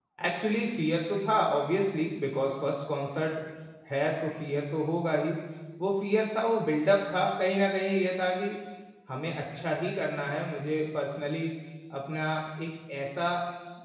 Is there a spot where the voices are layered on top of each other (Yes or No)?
No